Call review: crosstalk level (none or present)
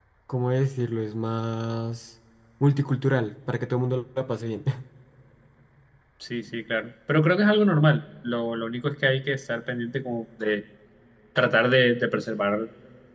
none